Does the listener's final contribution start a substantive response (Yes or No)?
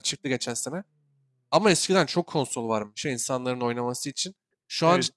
No